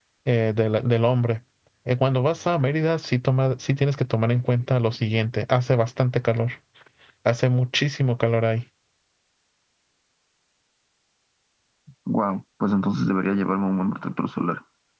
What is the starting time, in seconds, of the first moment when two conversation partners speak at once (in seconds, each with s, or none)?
none